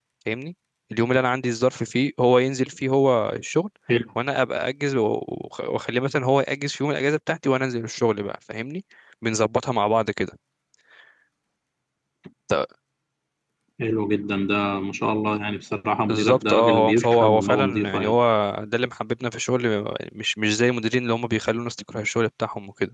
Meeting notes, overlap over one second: present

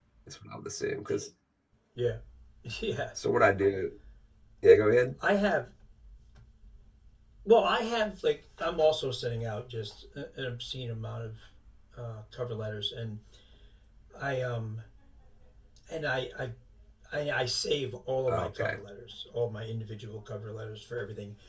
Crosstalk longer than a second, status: none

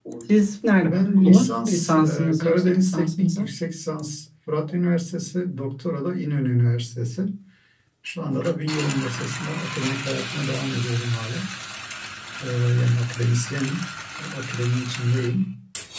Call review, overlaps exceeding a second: present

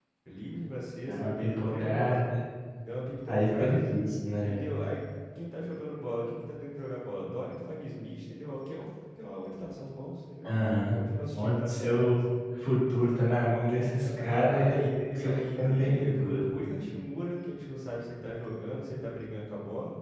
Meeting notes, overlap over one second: present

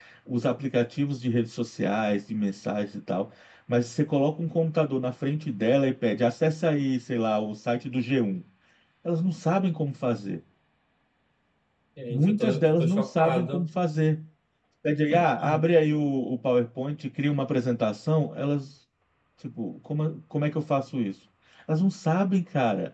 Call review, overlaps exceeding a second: present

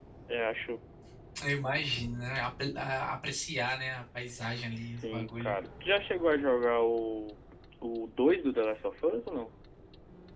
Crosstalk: present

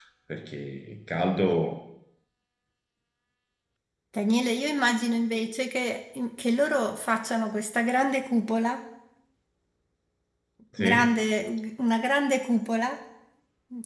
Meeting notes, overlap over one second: none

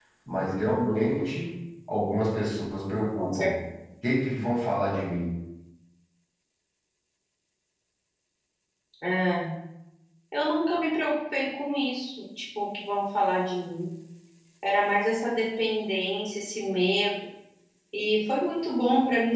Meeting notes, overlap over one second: none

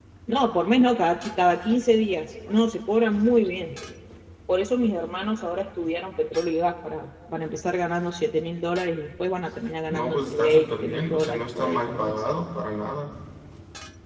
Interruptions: present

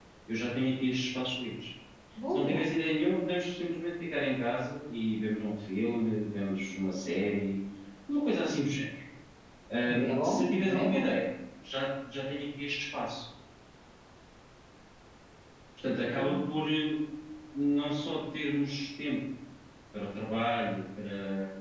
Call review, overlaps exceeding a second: present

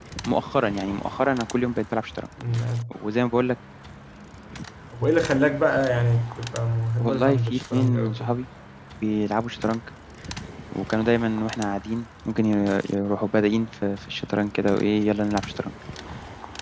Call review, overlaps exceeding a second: present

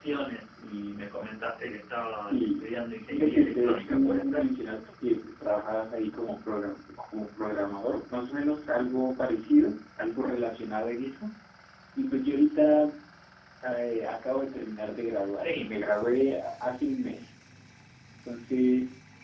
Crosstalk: present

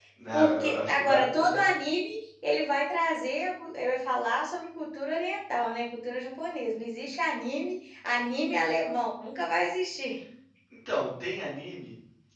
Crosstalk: present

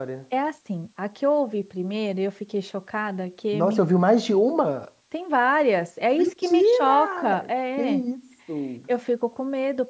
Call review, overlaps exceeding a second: present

